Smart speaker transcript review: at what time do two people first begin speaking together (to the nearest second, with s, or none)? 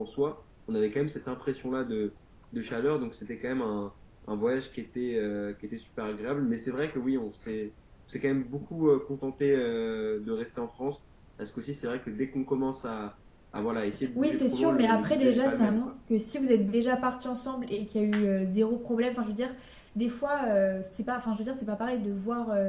14 s